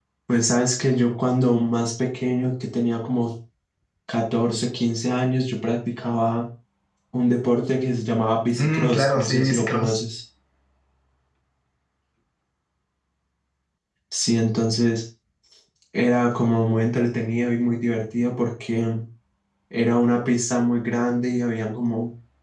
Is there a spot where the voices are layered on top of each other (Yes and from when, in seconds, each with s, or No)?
Yes, from 8.5 s